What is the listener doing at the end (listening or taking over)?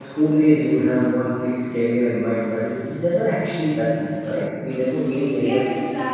taking over